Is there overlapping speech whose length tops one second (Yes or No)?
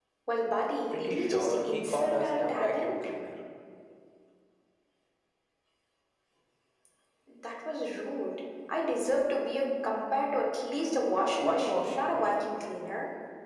Yes